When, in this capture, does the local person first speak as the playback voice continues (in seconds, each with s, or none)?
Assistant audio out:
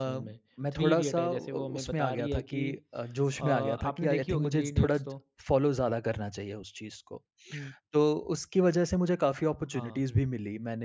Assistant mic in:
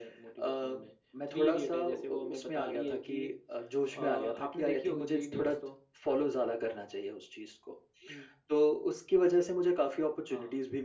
none